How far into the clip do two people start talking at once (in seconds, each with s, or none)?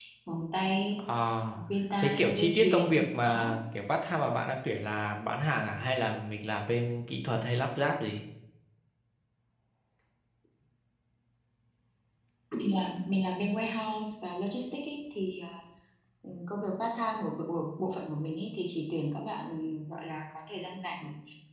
2.0 s